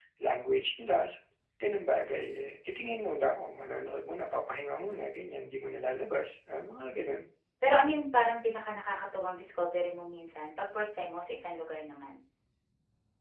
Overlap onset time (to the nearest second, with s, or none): none